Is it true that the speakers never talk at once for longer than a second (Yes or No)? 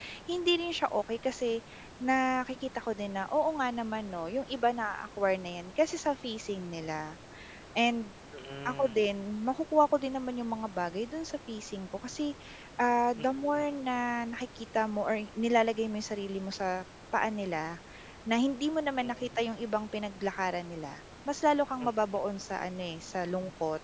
Yes